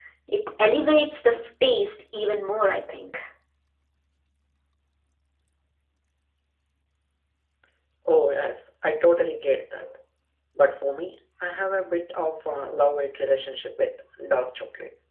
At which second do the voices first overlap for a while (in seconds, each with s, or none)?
none